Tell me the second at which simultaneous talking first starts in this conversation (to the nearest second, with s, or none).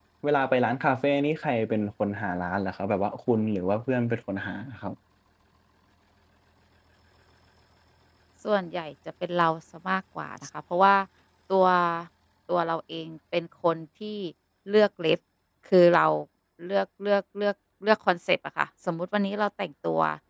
none